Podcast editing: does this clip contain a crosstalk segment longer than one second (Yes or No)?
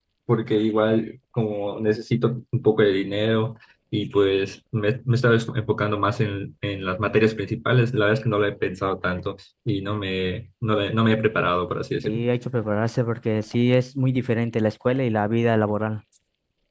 No